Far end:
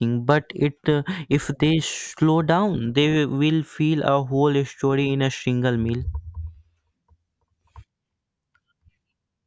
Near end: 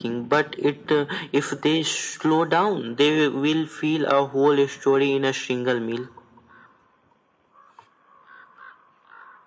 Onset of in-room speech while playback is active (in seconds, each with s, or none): none